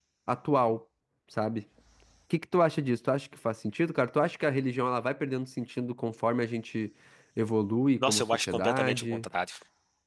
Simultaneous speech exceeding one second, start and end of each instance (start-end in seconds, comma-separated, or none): 8.0-9.2